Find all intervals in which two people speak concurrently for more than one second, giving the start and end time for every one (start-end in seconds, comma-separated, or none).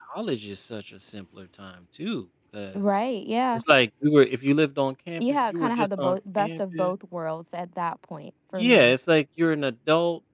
5.2-6.9